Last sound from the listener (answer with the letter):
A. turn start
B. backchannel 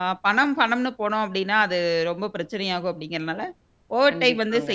B